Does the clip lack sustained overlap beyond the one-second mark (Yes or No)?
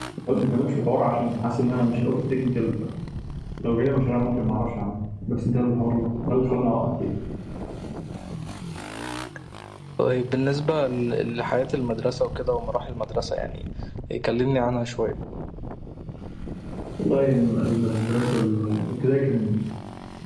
Yes